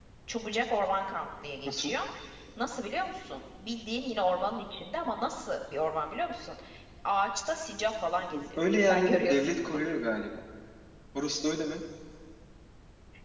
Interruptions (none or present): present